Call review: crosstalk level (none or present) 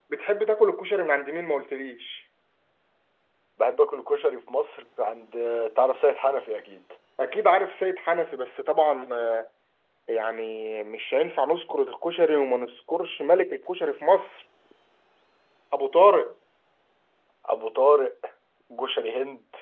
none